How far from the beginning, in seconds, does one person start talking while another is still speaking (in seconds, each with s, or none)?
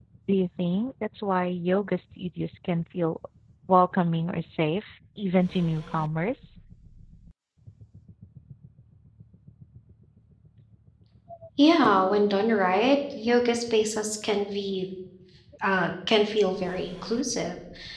none